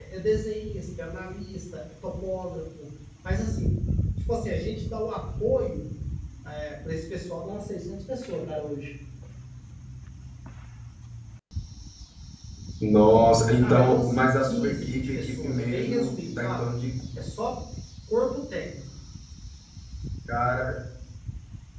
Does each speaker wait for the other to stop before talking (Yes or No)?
No